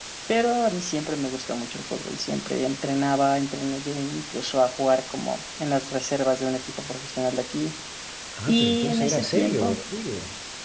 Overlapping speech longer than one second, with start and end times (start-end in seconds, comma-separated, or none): 8.5-9.8